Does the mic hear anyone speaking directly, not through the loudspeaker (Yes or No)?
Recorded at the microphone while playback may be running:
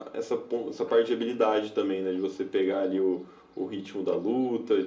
No